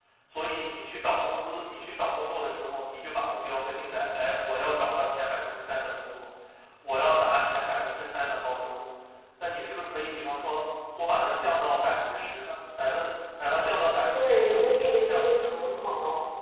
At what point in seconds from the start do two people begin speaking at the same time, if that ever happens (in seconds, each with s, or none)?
14.1 s